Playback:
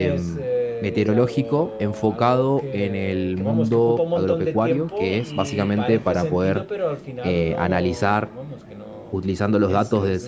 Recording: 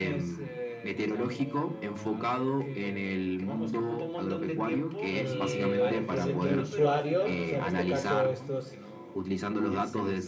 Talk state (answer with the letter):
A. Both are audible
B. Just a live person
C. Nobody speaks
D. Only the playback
A